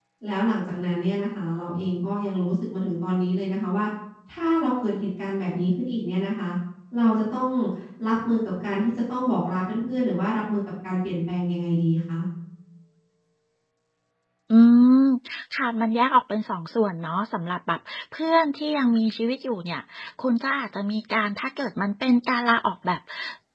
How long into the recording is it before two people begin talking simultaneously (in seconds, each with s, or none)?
none